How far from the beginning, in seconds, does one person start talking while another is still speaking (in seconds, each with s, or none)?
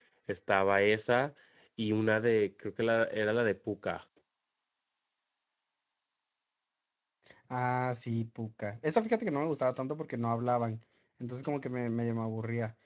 none